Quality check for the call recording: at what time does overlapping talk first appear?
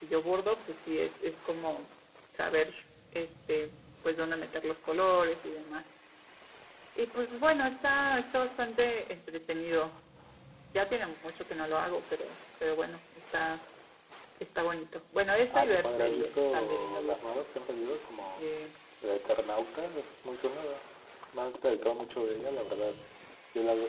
15.5 s

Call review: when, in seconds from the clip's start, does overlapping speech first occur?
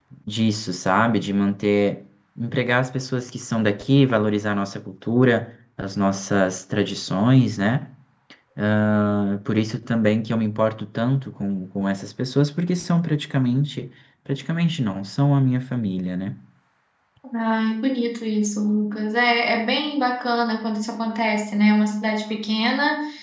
none

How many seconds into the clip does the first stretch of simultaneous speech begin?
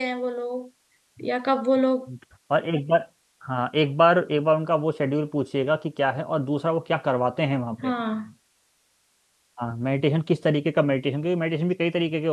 none

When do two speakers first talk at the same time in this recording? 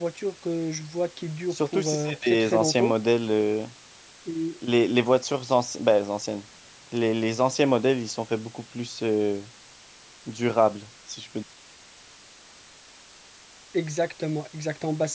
1.5 s

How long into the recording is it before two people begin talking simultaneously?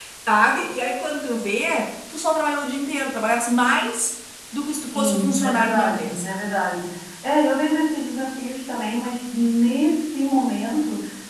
4.9 s

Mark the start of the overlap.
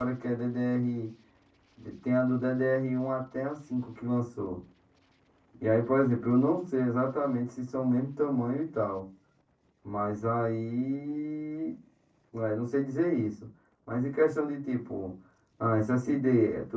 none

